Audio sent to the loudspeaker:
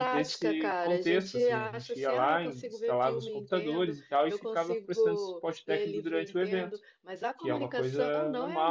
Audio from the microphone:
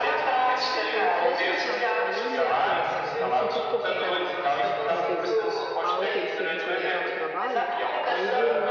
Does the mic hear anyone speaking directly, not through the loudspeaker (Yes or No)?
Yes